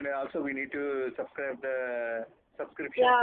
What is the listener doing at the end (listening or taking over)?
taking over